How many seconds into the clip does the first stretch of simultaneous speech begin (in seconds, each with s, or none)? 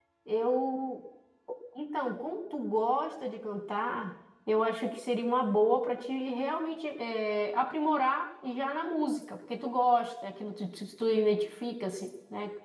none